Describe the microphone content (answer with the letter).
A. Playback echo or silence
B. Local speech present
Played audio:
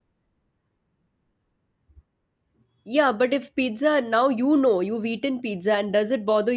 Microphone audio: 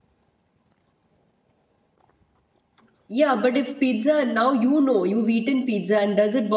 A